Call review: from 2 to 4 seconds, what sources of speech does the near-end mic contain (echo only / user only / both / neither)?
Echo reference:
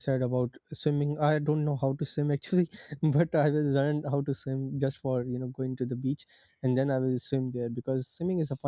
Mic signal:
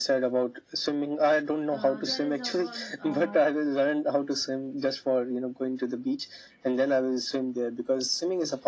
both